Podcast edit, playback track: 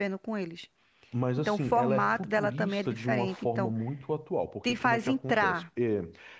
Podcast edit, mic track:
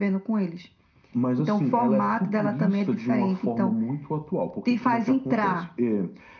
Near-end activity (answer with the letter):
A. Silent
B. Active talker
A